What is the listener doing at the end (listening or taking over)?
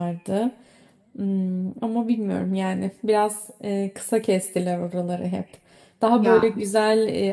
listening